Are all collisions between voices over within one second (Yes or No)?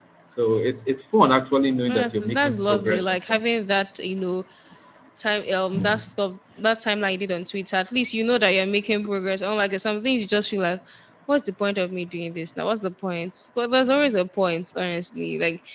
No